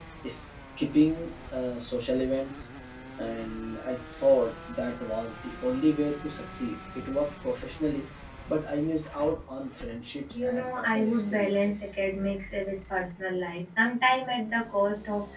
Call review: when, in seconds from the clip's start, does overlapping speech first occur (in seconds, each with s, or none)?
10.3 s